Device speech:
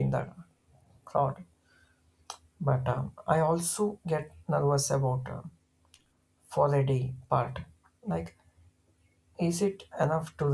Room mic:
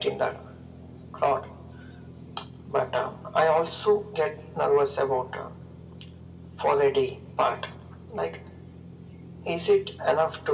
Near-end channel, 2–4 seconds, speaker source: echo only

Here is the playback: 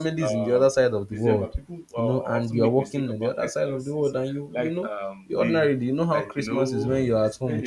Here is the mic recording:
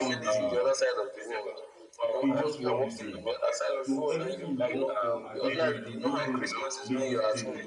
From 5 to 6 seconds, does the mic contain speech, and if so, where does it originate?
both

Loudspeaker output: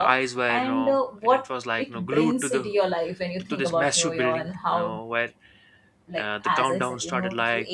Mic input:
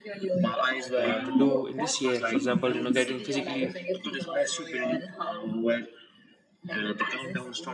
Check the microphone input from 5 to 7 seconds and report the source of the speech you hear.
echo only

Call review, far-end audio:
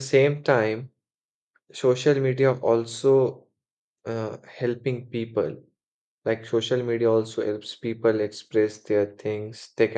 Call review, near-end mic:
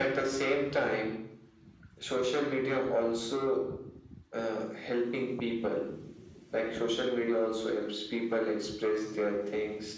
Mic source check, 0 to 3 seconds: echo only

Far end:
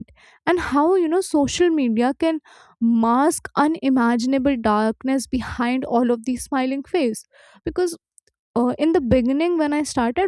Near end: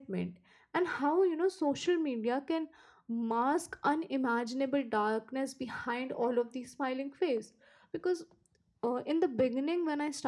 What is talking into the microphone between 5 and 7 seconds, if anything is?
echo only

